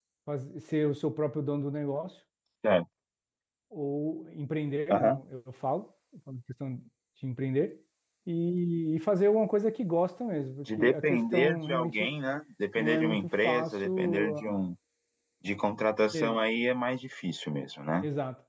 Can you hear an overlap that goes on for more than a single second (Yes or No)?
Yes